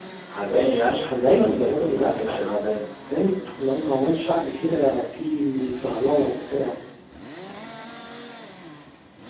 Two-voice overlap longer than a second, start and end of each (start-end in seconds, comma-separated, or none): 0.5-2.4